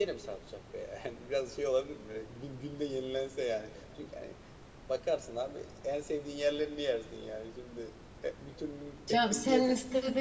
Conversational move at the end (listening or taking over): taking over